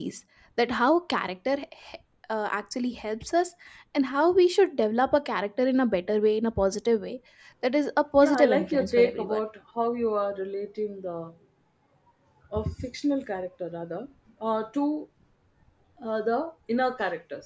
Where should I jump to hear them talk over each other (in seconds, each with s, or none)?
8.2 s